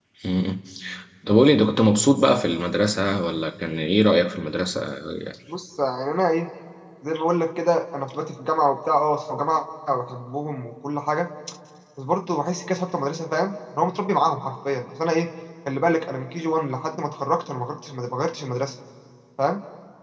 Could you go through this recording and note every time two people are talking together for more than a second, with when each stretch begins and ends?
none

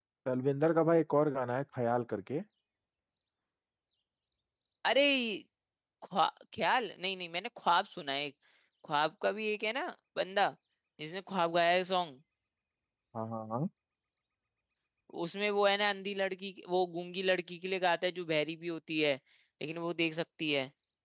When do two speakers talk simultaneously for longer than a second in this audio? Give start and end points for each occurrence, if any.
none

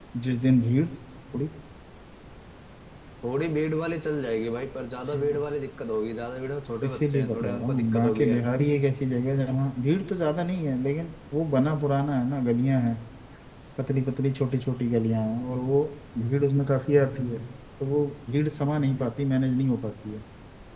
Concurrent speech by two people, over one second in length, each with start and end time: 6.8-8.4

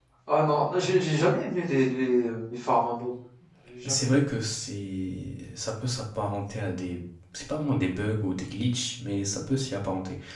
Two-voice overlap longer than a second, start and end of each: none

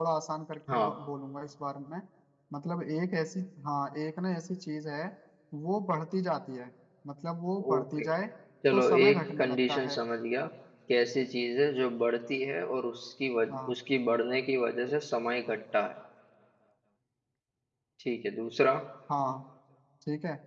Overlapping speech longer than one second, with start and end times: 8.7-9.9

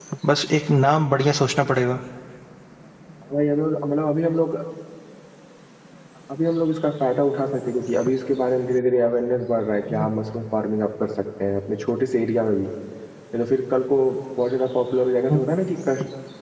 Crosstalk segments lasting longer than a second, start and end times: none

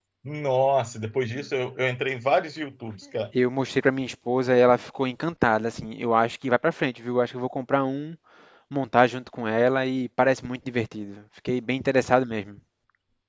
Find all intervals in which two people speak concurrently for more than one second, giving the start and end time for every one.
none

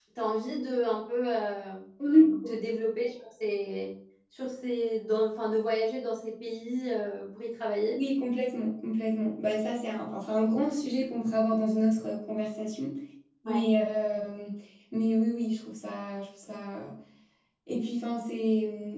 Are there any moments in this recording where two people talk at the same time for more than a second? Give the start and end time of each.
none

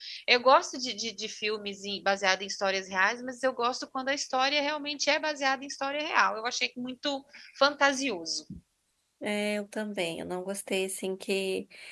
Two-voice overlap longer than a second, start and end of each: none

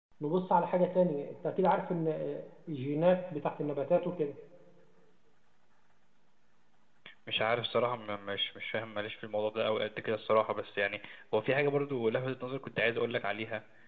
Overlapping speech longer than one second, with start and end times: none

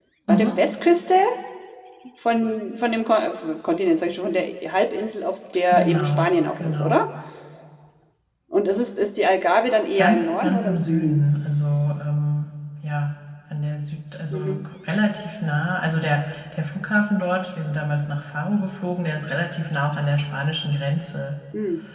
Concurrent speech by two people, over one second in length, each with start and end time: 5.8-7.0, 9.9-11.2

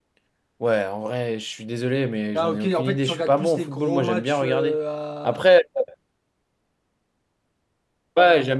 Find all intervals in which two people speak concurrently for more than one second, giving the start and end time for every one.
2.3-4.8

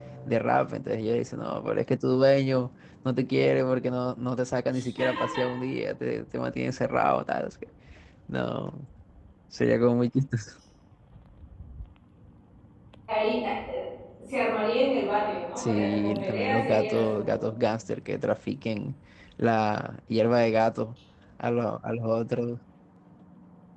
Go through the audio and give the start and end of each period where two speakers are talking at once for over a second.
15.6-17.4

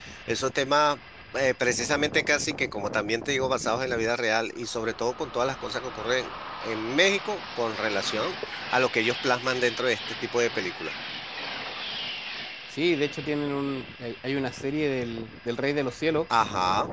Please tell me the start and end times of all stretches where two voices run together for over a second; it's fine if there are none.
none

